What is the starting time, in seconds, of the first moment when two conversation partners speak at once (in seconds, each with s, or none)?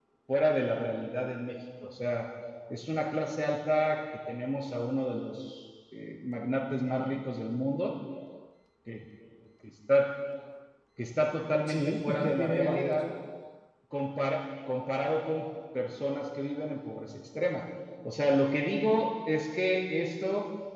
11.7 s